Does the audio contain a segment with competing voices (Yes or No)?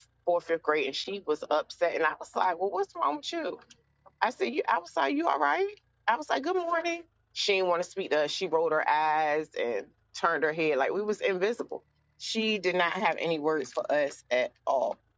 No